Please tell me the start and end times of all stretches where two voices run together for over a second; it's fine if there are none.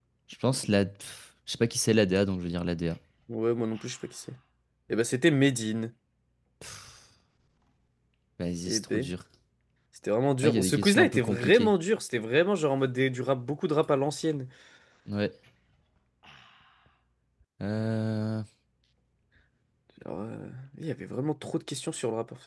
10.4-11.7

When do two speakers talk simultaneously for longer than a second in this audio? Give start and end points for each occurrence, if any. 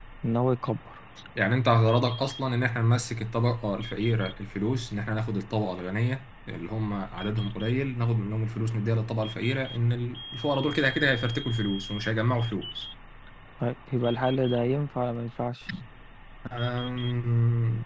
none

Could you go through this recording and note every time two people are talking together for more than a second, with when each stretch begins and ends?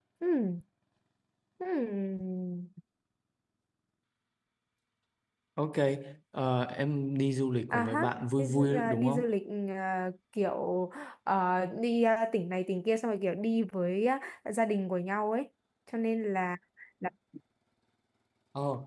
7.7-9.3

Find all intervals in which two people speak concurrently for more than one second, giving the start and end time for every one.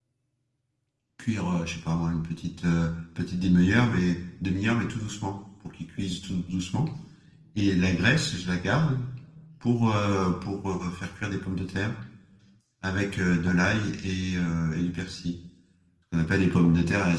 none

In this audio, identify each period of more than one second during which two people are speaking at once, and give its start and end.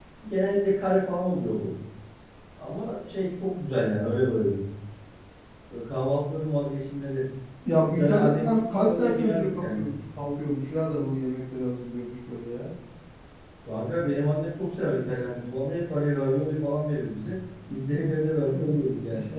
7.9-9.8

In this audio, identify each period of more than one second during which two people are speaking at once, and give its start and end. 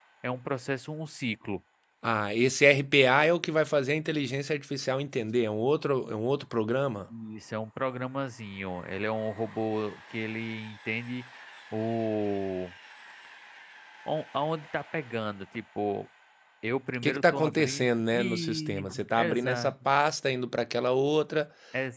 17.0-19.7

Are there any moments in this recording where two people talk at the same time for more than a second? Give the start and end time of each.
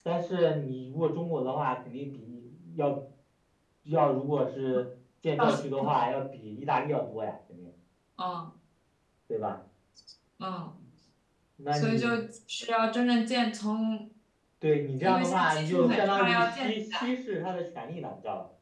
15.0-16.7

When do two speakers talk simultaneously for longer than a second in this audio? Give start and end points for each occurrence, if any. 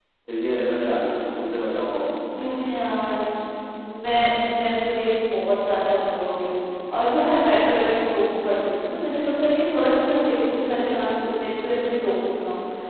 none

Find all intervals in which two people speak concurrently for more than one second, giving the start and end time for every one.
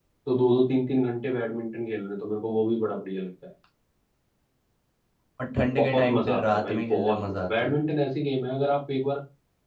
5.8-7.8

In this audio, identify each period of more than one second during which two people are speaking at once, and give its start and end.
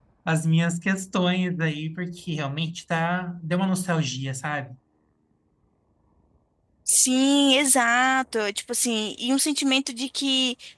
none

